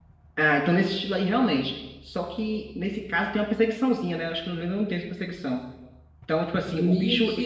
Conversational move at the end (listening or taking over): taking over